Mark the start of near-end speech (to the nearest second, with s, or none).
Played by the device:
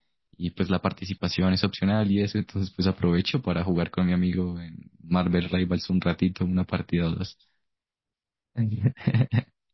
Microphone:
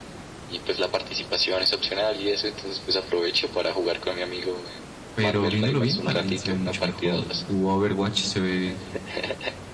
5 s